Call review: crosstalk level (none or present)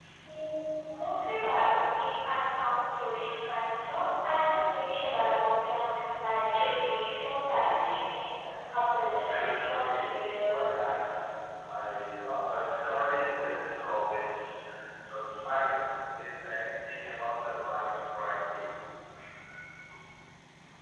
present